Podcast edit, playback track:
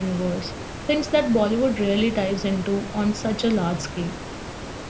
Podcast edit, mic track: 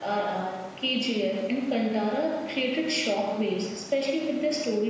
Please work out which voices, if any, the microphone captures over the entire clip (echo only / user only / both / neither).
user only